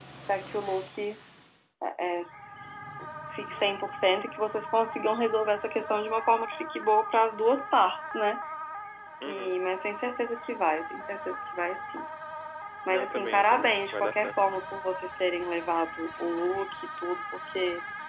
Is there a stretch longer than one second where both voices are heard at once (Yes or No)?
Yes